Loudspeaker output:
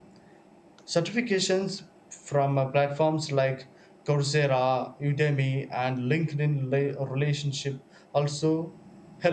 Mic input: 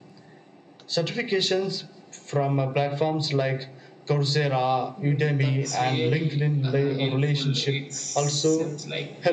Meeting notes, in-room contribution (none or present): present